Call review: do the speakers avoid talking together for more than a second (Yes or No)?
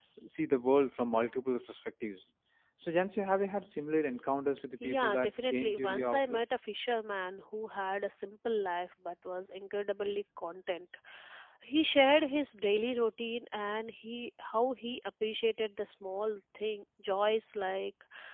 No